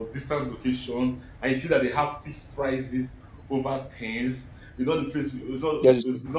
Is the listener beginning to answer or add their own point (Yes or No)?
No